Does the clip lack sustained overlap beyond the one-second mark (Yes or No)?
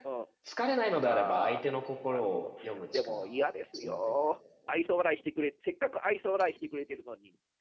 No